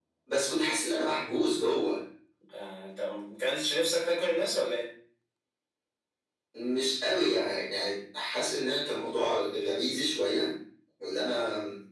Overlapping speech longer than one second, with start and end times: none

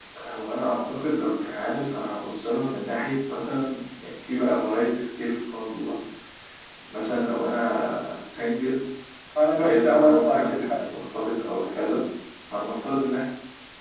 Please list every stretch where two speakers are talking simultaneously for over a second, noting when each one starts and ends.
9.6-10.9

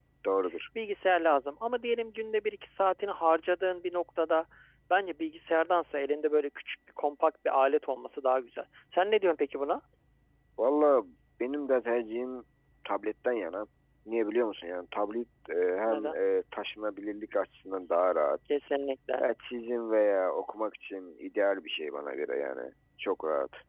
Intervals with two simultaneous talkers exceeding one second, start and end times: none

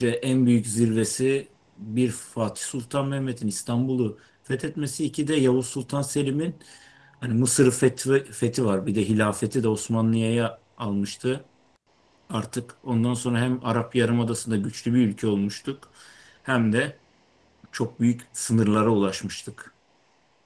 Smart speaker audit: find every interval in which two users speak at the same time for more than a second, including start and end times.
none

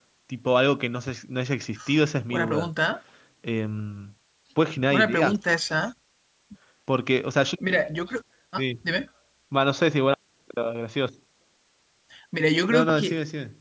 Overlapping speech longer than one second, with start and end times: none

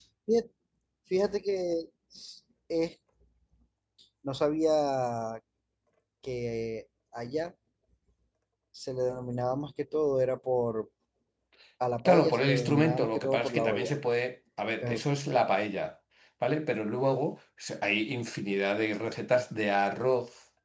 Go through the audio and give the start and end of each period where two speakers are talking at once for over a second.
12.1-13.9

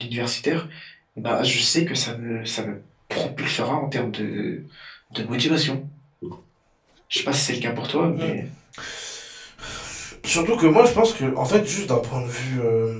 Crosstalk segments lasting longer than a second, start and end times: none

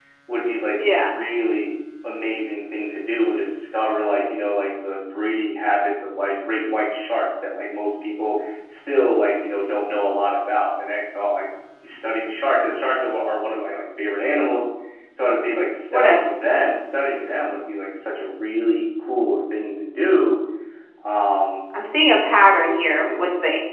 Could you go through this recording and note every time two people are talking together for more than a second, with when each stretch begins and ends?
none

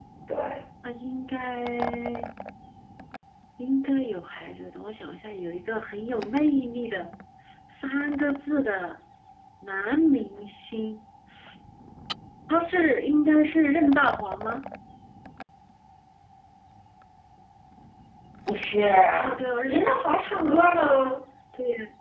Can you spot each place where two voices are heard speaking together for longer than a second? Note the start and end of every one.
19.7-21.0

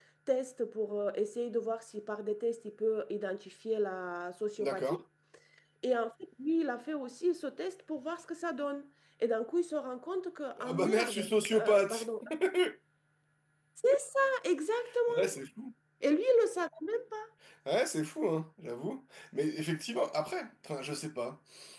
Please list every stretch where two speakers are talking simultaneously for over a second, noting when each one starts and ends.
10.6-12.0

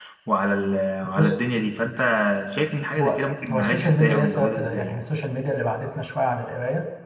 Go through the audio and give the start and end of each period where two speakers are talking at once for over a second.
3.0-5.0

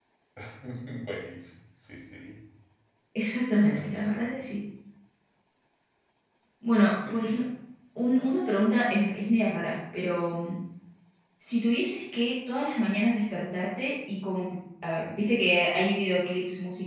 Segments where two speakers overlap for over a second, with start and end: none

